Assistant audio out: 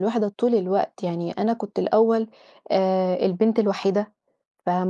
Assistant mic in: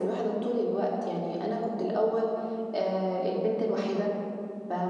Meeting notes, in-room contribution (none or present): none